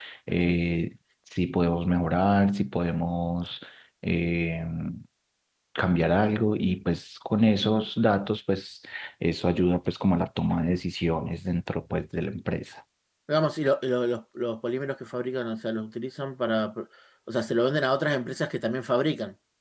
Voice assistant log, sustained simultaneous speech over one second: none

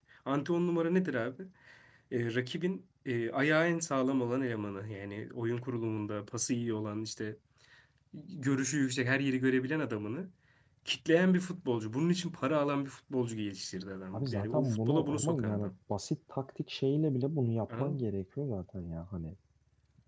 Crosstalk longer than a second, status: present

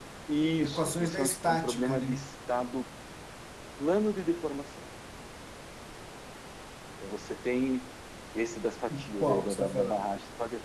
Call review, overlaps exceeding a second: present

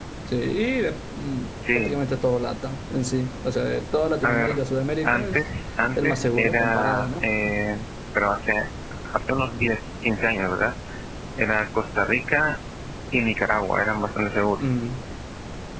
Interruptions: present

